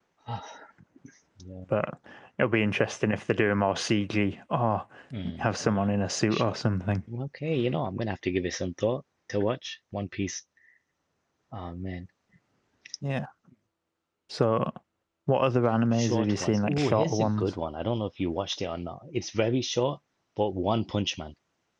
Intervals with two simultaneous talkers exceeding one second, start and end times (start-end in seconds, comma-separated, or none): 15.9-17.5